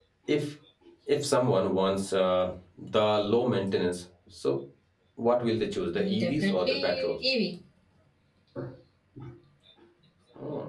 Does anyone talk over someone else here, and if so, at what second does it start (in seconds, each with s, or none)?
5.9 s